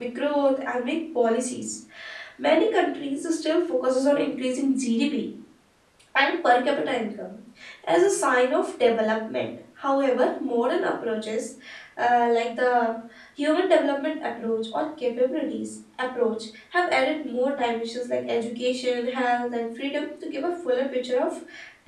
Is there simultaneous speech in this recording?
No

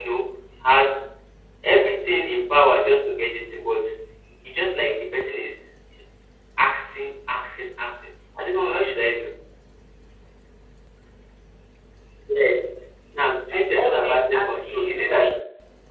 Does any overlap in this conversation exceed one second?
Yes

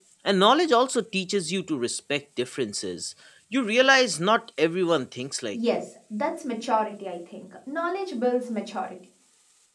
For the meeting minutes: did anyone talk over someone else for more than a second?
No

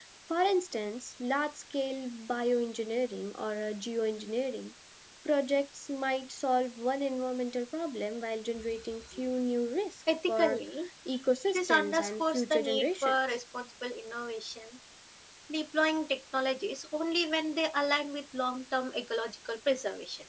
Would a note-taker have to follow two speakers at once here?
Yes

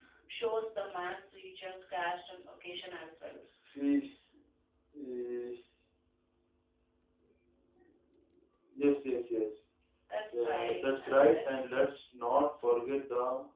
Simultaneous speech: Yes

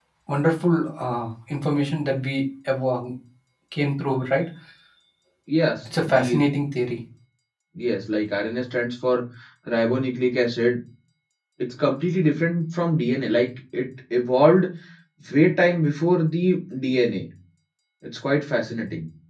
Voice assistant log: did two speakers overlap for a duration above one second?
No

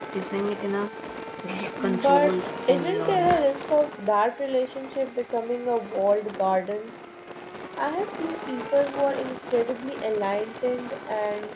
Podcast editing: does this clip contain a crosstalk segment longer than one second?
Yes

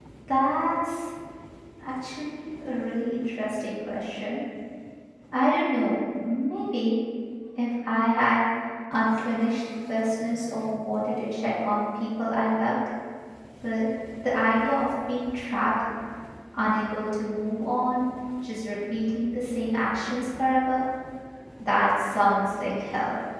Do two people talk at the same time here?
No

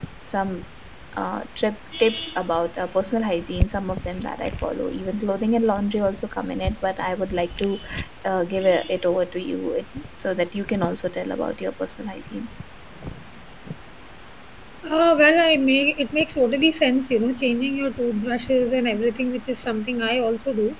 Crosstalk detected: No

